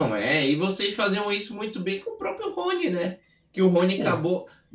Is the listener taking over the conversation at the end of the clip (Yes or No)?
No